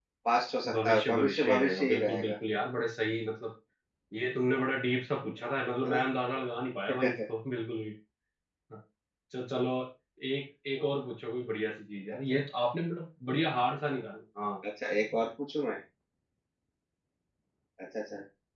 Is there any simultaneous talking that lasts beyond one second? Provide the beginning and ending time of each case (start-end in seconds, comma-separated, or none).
0.7-2.3